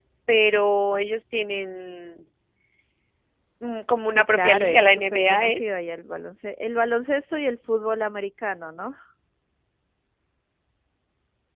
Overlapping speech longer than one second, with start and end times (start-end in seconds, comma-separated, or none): 4.1-5.6